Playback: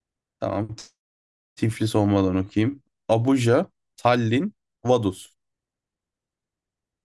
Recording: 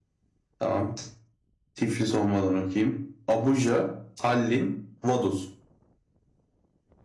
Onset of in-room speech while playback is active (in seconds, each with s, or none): none